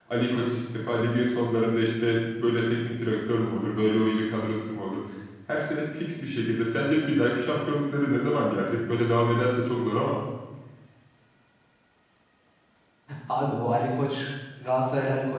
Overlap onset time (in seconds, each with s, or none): none